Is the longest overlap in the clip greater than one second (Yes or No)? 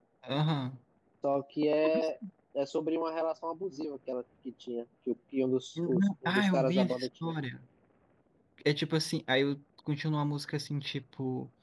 Yes